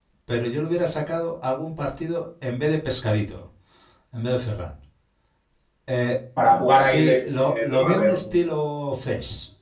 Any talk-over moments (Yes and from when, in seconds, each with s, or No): Yes, from 6.7 s